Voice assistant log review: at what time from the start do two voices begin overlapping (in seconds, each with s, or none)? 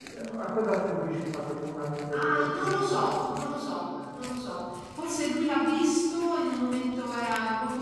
2.1 s